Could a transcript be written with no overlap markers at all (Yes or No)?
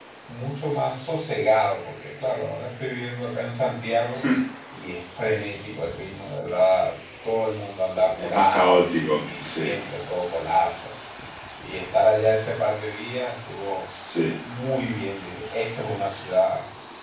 No